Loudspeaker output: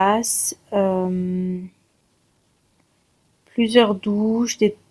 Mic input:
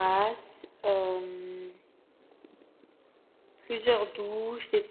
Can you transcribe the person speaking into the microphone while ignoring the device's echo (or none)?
none